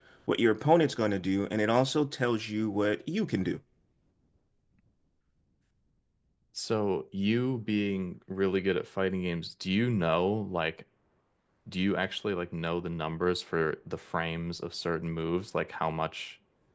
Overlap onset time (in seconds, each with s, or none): none